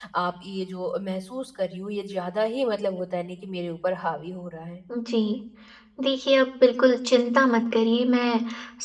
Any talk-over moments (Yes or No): No